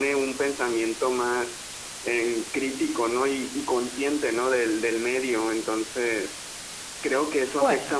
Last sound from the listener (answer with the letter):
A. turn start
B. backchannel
B